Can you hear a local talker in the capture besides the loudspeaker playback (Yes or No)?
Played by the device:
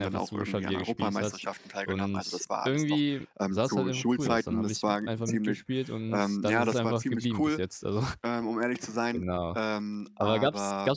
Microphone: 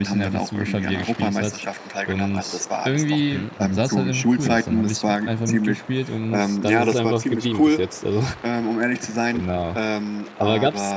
Yes